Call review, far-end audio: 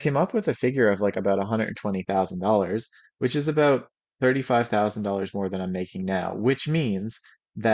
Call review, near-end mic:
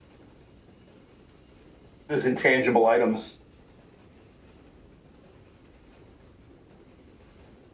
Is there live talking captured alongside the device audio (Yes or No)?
Yes